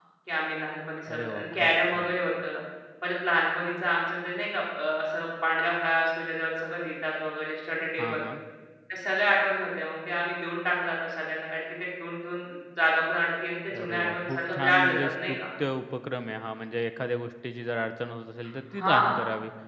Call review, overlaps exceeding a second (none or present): present